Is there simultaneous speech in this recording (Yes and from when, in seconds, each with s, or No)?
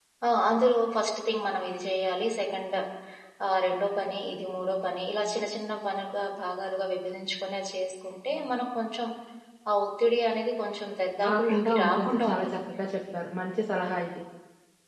Yes, from 11.2 s